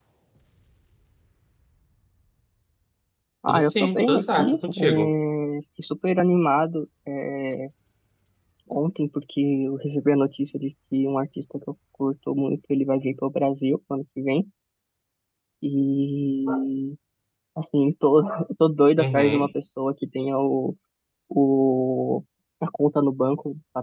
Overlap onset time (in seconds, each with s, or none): 3.5 s